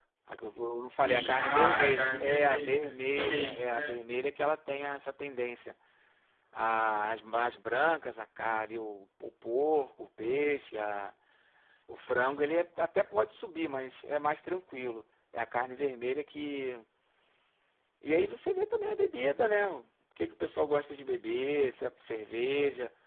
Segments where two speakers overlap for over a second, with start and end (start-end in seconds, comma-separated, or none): 0.9-3.9